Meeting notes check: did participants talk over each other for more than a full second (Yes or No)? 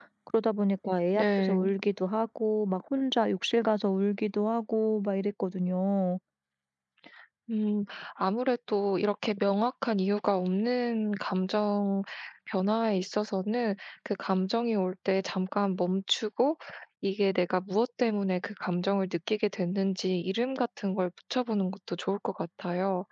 No